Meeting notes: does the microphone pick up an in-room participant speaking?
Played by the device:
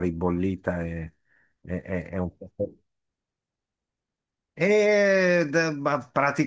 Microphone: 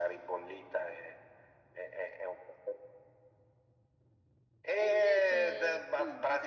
Yes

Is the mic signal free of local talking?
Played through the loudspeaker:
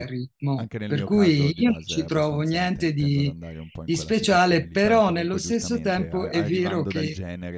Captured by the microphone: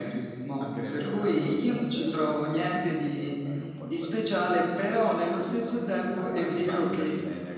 Yes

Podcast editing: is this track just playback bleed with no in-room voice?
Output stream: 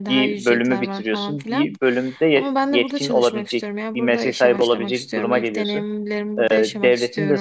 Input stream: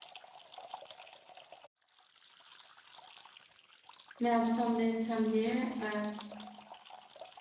No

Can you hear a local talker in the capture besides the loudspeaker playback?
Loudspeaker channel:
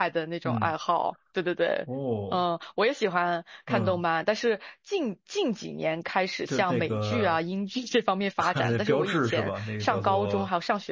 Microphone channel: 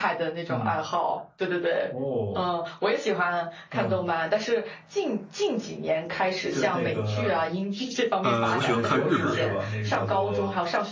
Yes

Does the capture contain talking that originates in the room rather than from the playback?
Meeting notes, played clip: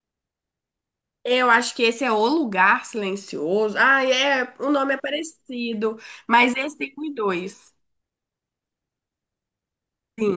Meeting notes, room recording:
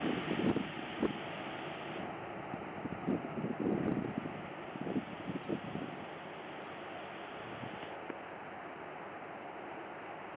No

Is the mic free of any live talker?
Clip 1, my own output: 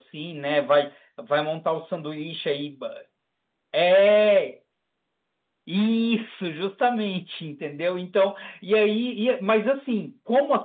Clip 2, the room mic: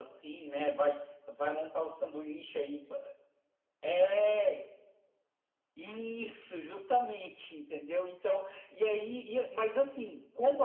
Yes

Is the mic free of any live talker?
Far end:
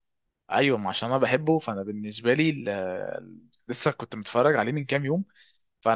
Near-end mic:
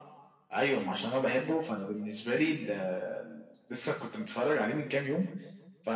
Yes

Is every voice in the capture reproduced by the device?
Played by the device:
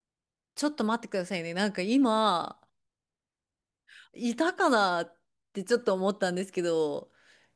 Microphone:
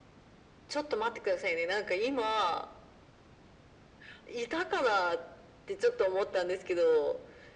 Yes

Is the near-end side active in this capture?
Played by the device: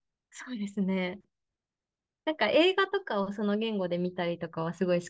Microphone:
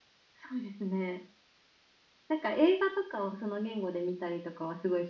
No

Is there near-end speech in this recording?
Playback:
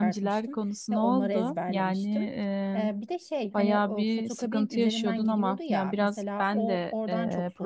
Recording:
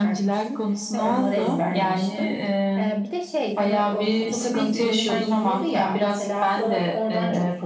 No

